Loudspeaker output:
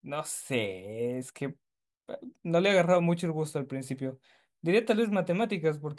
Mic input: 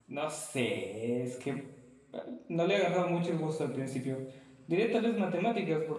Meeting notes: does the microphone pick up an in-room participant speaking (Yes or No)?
No